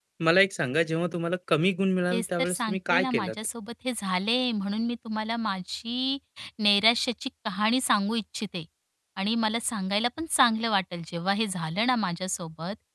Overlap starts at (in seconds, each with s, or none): 2.1 s